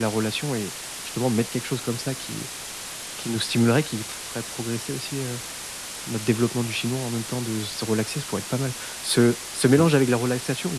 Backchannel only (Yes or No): Yes